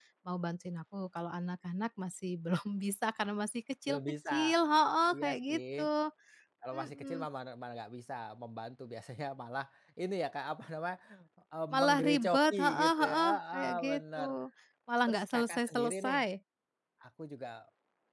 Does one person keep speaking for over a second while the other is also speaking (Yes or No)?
Yes